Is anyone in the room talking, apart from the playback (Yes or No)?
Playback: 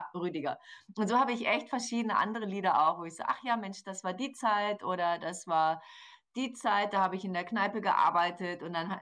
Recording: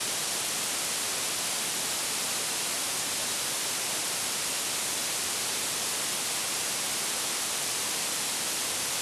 No